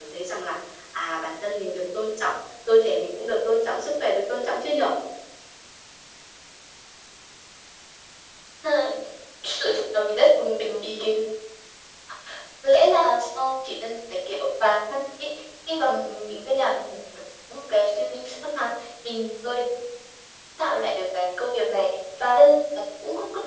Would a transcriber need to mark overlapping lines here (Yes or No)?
No